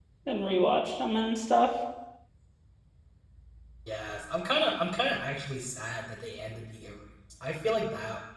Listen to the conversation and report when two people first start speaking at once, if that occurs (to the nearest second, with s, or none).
none